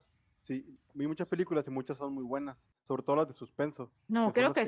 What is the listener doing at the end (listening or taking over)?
taking over